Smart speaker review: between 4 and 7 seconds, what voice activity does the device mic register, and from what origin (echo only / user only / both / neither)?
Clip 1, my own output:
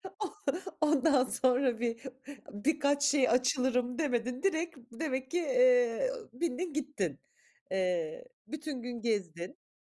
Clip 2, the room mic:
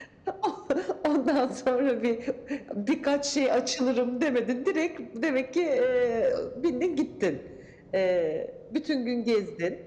echo only